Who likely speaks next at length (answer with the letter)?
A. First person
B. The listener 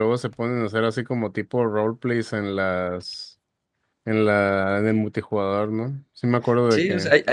B